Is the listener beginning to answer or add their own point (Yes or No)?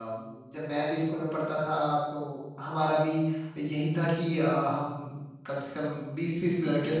No